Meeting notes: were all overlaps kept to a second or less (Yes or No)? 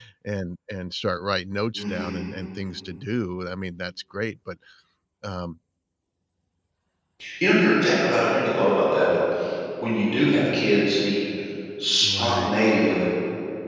Yes